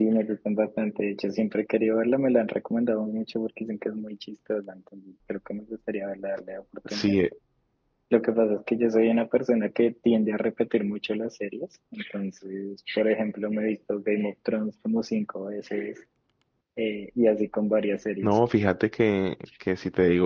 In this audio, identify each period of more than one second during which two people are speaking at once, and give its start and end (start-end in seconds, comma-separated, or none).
none